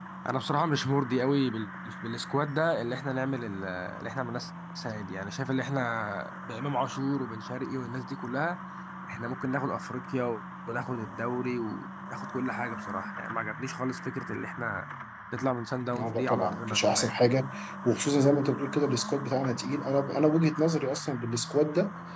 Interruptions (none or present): present